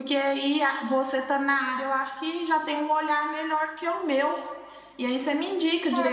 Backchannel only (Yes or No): No